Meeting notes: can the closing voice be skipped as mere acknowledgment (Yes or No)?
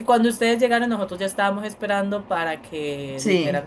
Yes